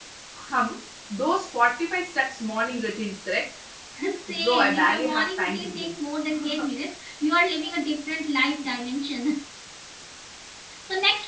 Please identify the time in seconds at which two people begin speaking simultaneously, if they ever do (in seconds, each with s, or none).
4.3 s